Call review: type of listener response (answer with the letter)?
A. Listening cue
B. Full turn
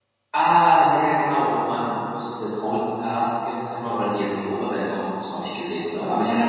B